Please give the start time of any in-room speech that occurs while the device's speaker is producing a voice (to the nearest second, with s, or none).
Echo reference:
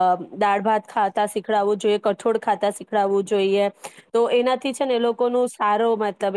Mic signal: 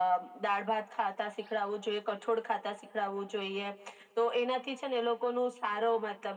none